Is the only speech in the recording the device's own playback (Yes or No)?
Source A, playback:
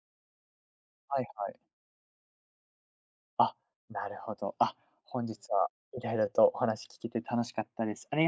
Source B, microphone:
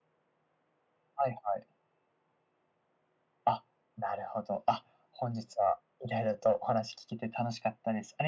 Yes